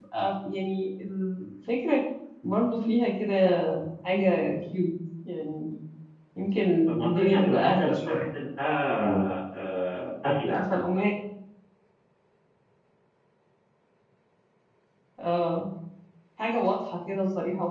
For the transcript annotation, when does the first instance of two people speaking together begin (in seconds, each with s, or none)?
6.9 s